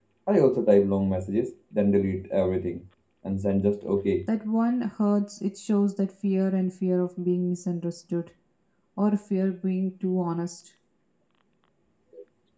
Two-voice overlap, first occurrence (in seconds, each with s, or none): none